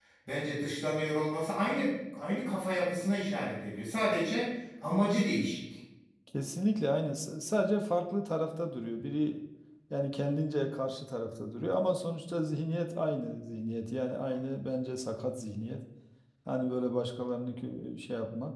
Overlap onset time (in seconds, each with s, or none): none